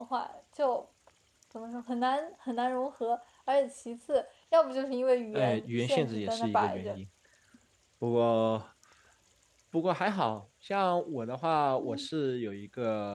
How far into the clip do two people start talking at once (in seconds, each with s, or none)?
5.3 s